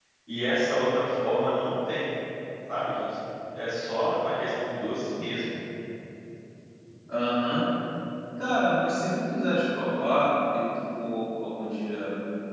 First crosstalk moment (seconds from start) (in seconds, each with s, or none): none